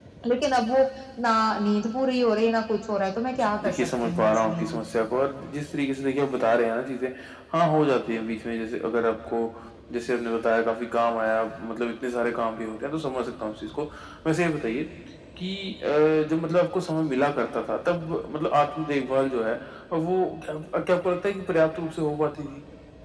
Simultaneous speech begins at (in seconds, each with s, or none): 3.4 s